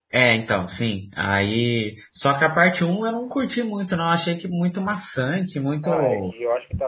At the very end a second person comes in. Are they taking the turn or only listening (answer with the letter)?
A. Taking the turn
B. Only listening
A